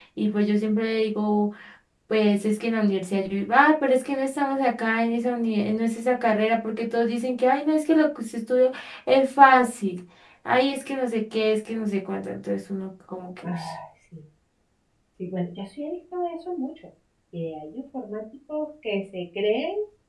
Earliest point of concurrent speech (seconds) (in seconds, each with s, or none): none